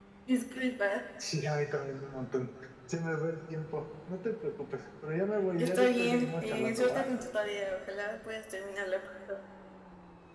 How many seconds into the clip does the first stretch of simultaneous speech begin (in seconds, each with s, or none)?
5.6 s